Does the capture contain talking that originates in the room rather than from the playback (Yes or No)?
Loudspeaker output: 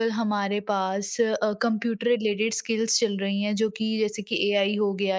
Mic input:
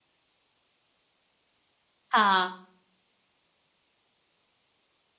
Yes